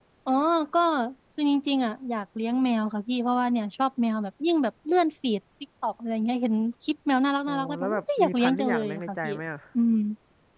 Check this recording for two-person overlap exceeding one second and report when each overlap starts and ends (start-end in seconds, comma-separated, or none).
7.5-9.3